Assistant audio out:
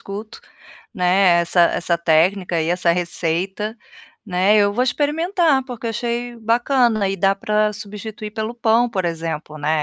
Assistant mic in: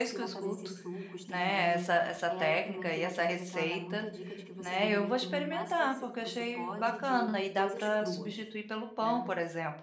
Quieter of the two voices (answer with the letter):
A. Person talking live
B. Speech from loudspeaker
A